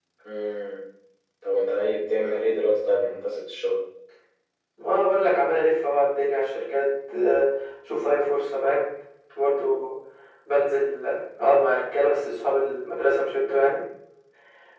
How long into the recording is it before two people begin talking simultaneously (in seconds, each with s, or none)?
none